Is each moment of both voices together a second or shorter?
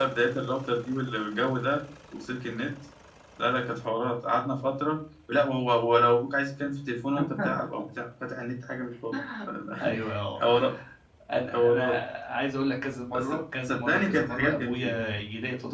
No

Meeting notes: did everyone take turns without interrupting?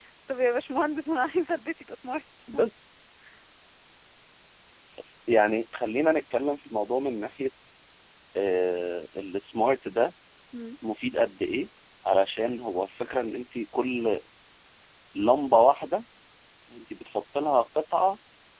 Yes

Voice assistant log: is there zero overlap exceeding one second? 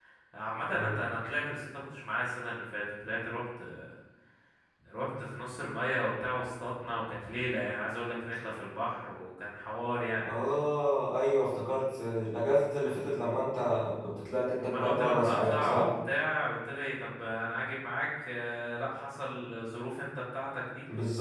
No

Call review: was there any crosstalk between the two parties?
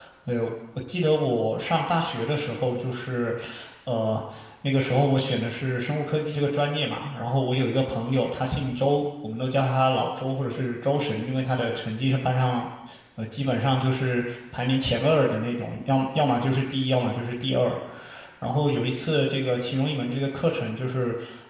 No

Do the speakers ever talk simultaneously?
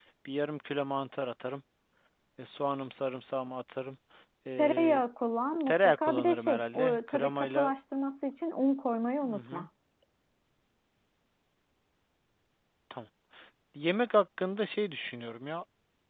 Yes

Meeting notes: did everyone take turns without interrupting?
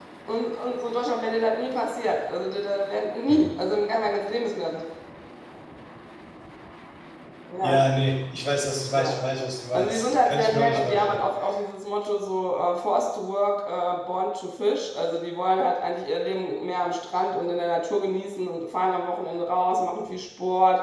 No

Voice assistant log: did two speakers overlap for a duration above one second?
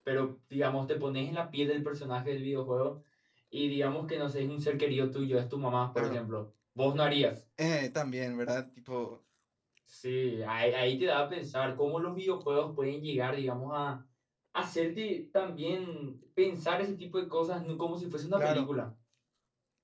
No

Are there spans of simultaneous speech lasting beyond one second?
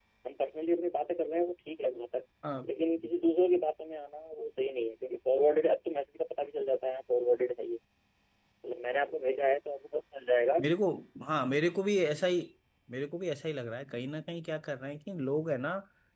No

